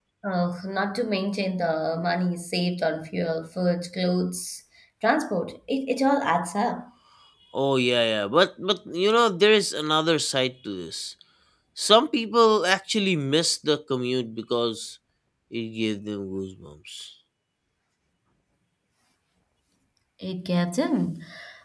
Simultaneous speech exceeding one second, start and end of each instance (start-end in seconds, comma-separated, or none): none